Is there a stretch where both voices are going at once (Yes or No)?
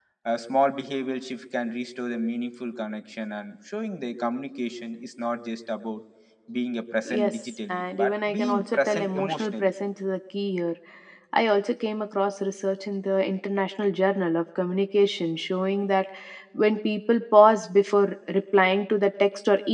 Yes